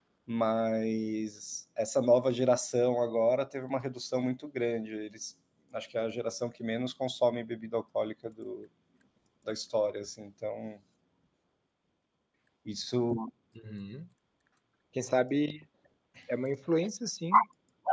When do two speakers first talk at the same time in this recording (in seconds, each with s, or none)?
none